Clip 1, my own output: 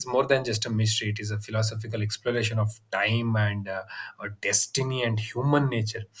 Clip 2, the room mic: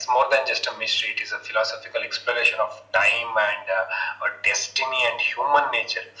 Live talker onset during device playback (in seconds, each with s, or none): none